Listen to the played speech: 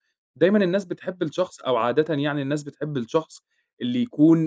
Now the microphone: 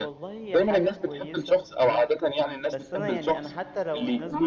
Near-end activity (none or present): present